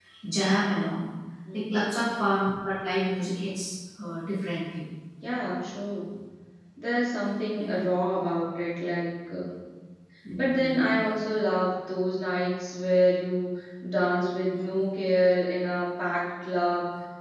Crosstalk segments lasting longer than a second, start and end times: none

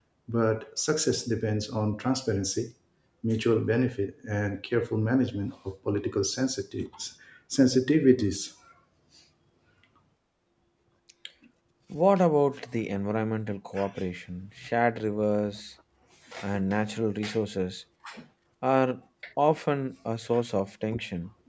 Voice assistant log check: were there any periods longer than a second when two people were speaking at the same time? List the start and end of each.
none

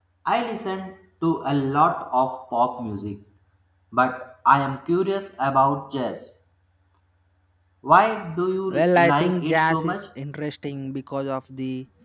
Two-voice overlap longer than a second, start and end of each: 8.7-10.1

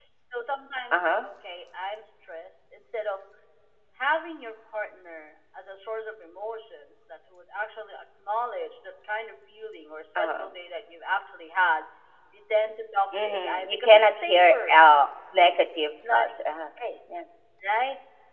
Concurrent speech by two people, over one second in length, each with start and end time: 13.2-14.8

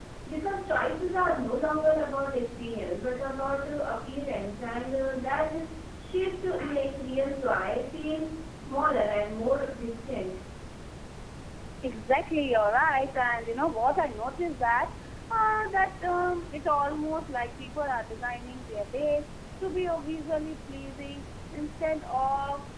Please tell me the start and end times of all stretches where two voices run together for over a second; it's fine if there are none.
none

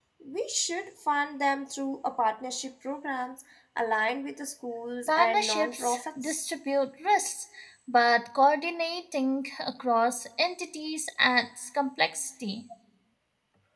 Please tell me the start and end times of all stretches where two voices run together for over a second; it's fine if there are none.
5.1-6.5

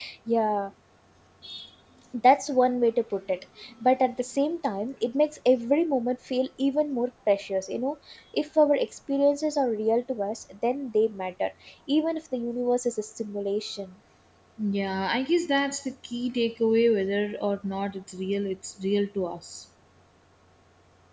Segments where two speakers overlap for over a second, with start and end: none

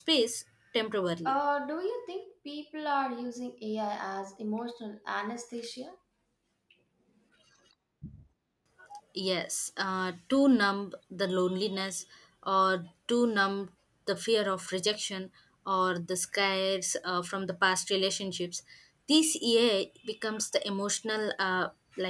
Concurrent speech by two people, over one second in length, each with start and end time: none

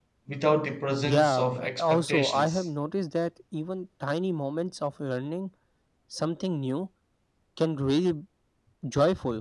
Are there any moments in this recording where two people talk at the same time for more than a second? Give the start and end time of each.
1.0-2.6

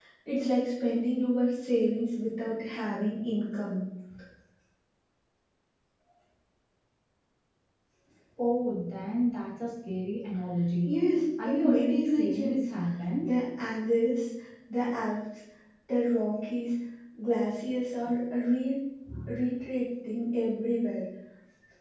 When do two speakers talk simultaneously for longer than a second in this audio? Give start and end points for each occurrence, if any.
11.4-12.7

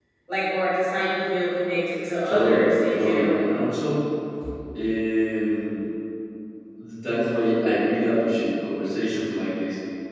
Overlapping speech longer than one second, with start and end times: 2.2-3.5

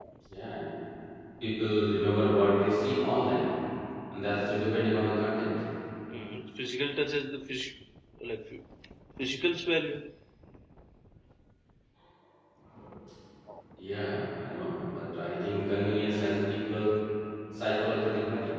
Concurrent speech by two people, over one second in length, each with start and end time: none

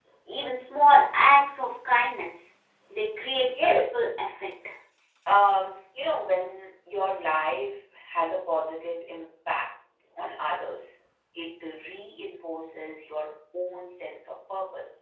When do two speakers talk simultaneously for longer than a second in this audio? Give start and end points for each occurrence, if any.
none

